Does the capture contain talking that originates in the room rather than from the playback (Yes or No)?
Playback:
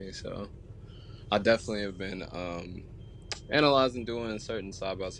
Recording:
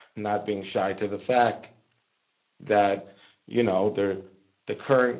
Yes